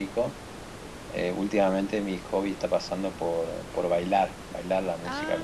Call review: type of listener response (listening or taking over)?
listening